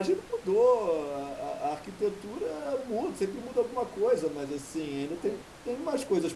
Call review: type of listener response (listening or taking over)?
listening